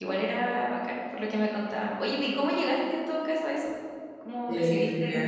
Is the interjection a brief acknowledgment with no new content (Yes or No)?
No